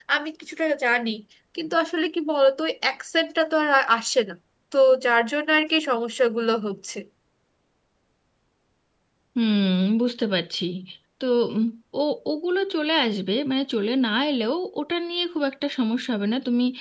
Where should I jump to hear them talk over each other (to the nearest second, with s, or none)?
none